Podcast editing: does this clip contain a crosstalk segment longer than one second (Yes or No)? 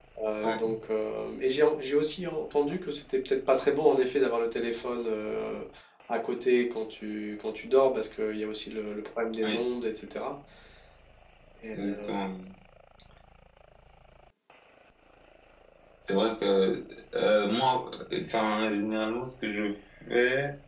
No